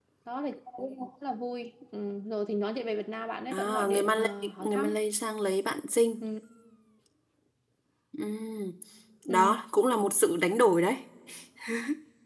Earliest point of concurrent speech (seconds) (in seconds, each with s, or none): 3.5 s